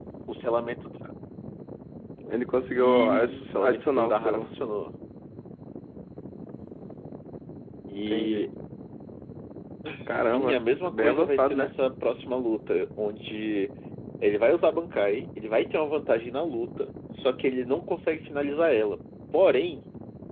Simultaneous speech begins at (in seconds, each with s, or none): 2.7 s